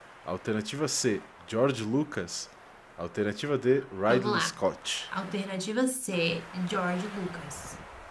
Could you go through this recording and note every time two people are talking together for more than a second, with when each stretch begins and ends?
none

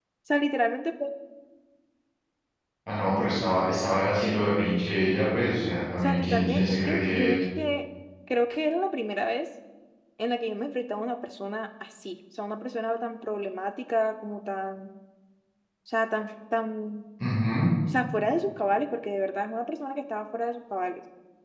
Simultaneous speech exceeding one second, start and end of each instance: 6.0-7.4

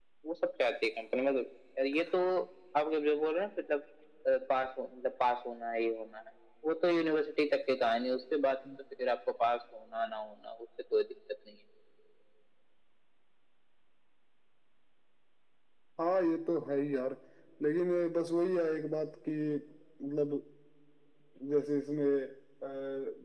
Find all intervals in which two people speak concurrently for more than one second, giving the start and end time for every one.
none

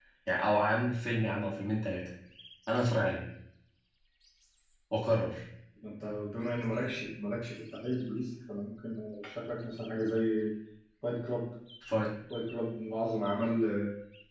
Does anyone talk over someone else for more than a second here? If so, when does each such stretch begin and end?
none

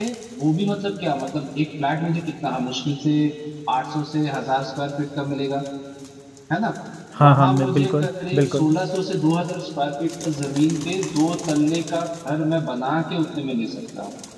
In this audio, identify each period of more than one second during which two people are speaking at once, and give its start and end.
7.2-8.7

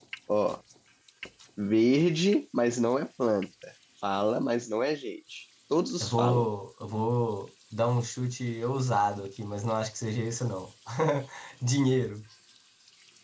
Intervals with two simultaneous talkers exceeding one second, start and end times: none

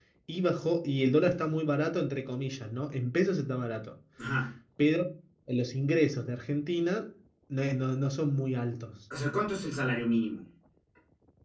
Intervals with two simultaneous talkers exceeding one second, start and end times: none

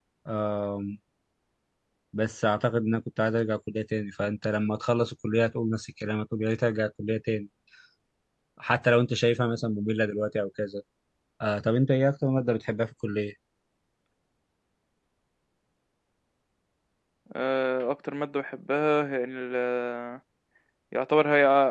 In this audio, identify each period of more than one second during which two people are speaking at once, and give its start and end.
none

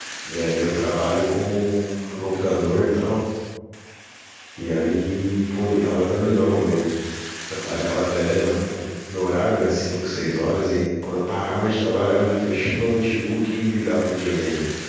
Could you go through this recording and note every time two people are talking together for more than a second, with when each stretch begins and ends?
none

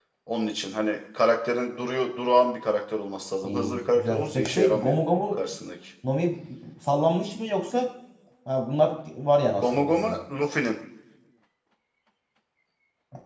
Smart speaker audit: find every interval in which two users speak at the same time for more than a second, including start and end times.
3.4-4.9

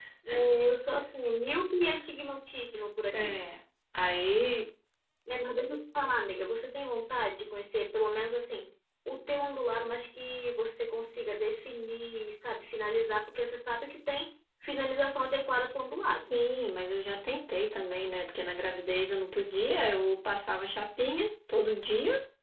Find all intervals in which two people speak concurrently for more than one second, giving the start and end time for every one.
none

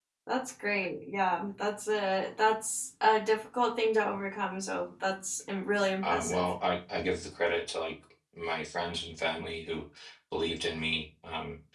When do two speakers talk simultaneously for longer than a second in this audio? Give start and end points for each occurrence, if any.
none

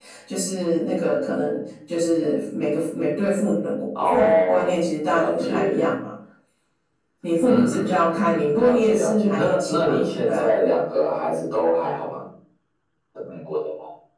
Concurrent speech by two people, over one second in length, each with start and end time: 4.0-5.9, 7.4-10.5

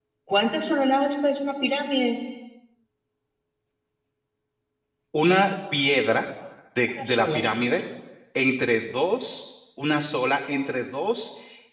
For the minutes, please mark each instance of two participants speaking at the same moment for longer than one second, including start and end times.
none

